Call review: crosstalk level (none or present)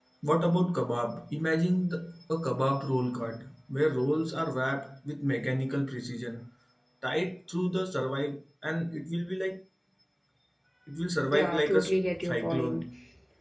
present